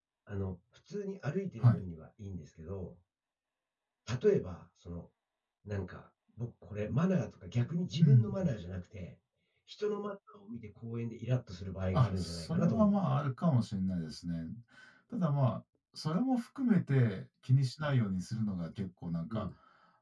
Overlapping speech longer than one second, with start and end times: 11.9-13.2

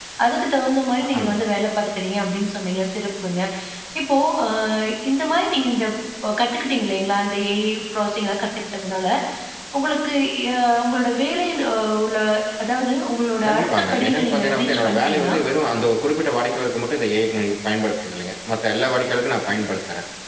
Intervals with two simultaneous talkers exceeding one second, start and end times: 13.5-15.4

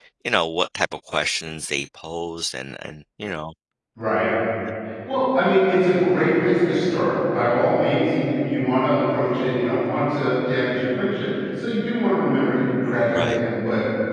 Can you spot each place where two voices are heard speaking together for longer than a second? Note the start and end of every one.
none

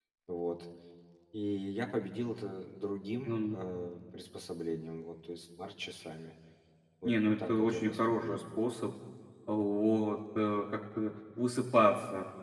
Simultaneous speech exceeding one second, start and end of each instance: 7.0-8.4

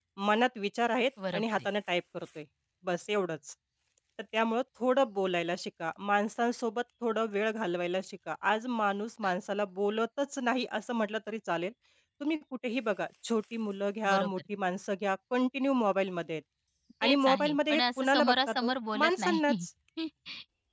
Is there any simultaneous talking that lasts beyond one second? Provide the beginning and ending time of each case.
17.0-19.6

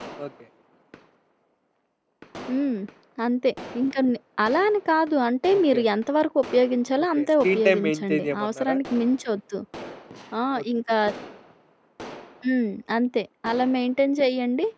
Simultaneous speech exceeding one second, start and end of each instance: 7.0-8.8

